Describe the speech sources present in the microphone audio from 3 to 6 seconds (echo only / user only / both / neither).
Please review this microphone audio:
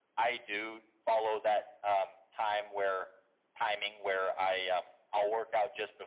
echo only